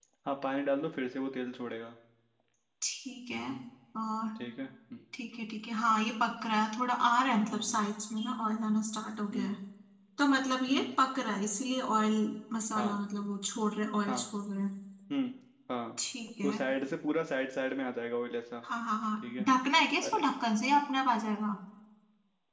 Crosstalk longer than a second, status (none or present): none